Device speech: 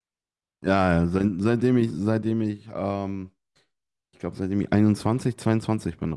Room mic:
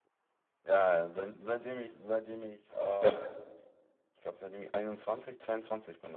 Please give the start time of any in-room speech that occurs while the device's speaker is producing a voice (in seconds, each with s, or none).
3.0 s